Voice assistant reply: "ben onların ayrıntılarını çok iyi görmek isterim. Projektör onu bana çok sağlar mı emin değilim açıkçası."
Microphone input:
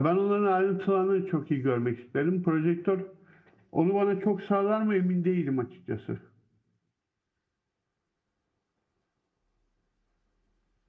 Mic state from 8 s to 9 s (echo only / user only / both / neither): neither